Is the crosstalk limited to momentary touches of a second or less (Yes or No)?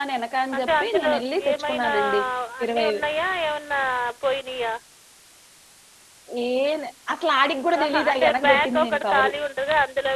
No